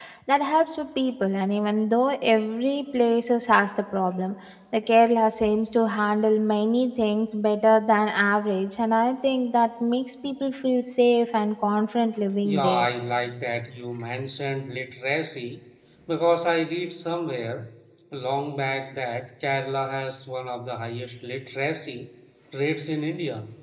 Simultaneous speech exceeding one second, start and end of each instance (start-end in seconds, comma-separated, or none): none